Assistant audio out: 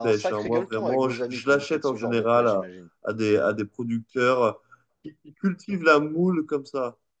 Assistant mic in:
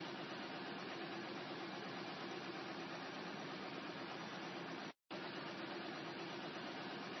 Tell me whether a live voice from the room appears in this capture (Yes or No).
No